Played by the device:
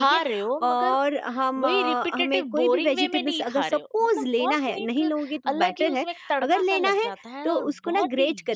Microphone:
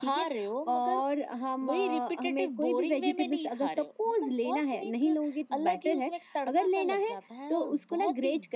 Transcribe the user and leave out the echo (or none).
none